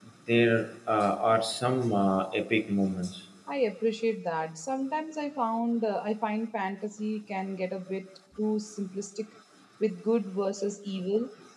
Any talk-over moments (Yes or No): No